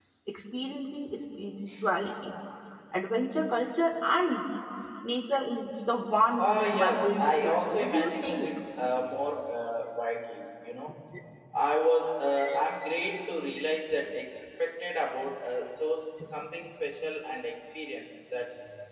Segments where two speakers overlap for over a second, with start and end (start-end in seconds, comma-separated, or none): 6.4-8.5